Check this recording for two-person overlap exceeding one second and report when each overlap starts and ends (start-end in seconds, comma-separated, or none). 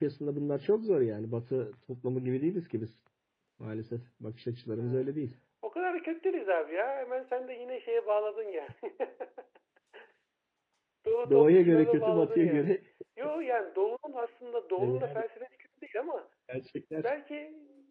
11.3-12.8